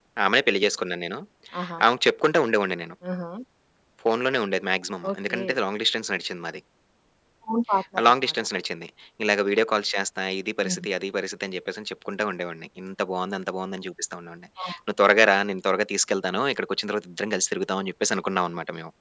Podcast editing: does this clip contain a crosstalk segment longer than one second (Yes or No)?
No